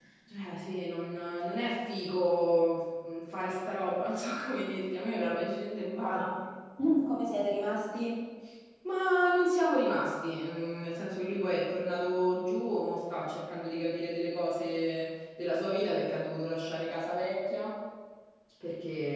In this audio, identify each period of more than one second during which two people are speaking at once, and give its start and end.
none

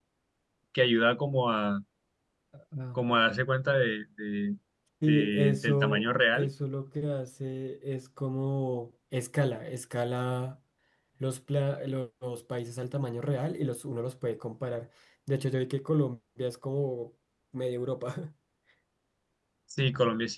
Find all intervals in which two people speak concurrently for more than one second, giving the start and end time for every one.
5.1-6.5

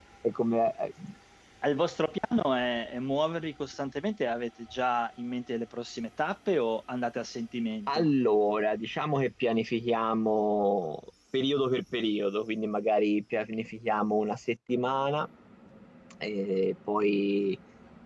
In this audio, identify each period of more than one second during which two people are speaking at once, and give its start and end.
none

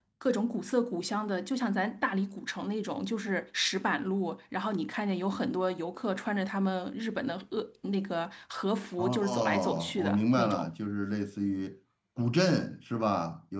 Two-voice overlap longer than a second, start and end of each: 9.0-10.7

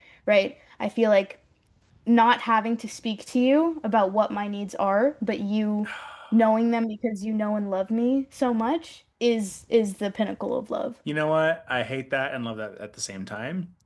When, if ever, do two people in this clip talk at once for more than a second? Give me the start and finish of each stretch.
none

